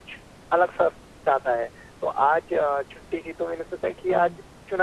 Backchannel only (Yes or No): Yes